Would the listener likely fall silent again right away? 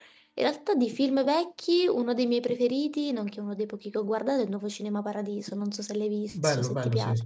No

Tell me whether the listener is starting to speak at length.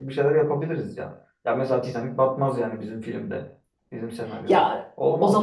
Yes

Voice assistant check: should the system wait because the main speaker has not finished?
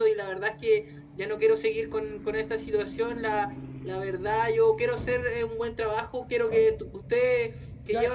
No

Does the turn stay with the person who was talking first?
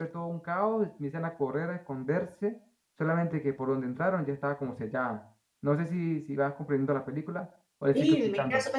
No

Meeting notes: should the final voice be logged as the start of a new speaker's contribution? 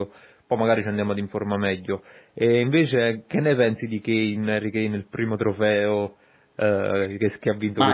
Yes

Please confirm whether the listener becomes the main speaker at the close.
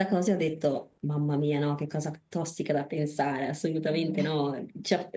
No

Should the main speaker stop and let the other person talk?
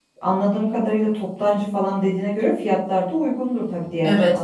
Yes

